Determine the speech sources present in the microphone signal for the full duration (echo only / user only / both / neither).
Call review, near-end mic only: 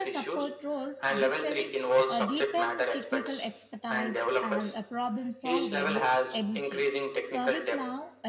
both